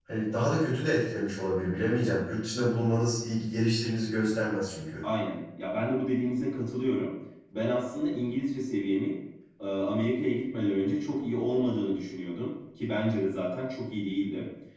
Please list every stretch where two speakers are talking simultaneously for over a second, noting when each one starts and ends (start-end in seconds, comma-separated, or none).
none